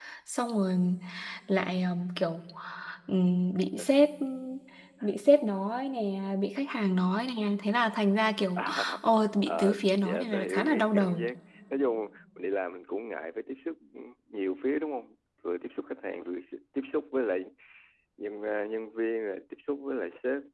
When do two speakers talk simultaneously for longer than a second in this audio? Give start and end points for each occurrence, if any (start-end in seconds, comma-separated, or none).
9.5-11.2